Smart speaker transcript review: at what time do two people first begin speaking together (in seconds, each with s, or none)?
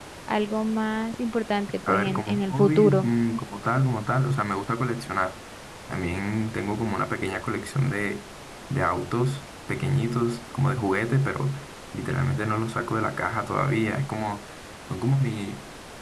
1.8 s